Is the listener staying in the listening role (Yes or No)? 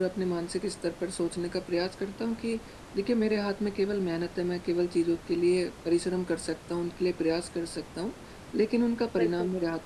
Yes